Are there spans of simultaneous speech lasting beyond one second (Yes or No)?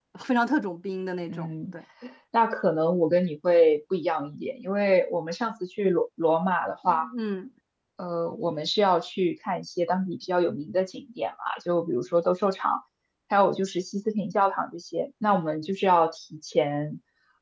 No